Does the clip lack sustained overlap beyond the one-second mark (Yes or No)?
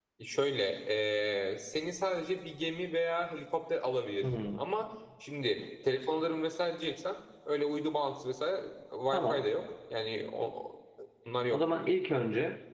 Yes